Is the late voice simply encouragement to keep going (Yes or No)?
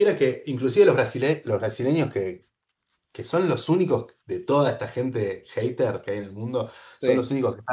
Yes